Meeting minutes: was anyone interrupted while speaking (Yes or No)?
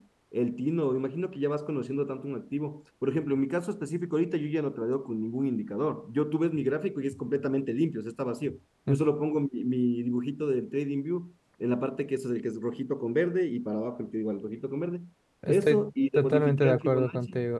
Yes